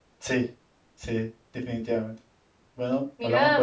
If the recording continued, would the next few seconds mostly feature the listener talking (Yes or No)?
Yes